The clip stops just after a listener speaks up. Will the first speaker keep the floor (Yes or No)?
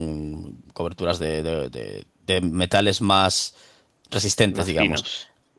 Yes